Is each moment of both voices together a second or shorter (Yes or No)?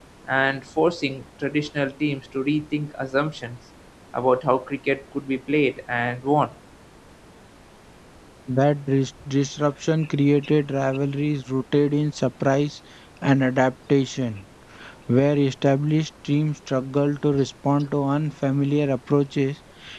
Yes